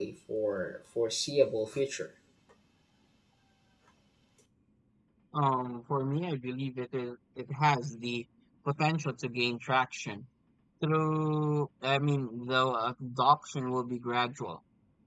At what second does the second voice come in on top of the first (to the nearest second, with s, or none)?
none